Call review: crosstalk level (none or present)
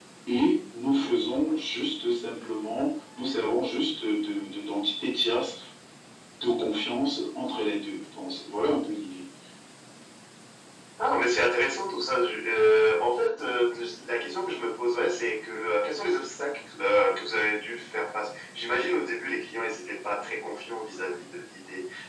none